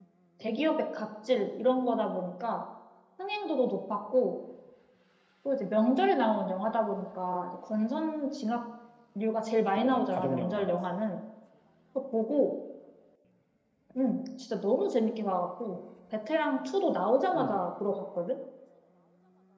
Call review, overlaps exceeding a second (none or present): present